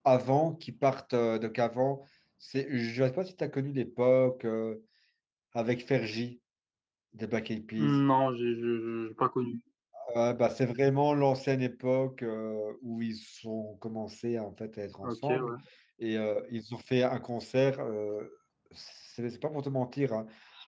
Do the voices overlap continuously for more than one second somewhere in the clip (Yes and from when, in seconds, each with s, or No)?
No